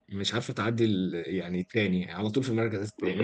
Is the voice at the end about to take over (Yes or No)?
Yes